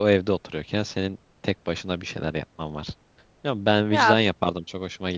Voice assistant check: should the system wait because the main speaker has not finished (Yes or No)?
Yes